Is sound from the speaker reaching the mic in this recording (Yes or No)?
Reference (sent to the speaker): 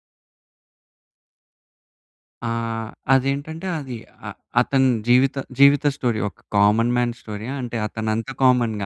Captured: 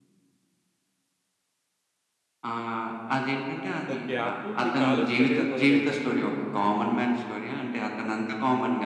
Yes